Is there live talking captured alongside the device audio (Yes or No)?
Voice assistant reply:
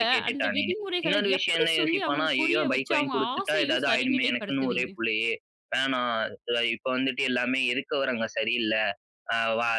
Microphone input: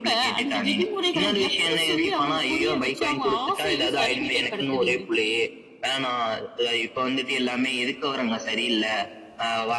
No